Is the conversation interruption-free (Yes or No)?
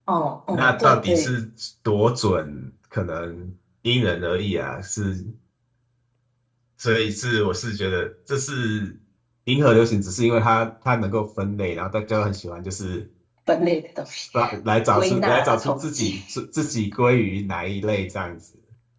No